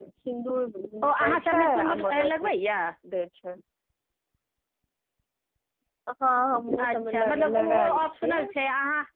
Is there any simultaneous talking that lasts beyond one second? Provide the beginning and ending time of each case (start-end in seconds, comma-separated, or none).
1.1-2.5, 6.9-8.4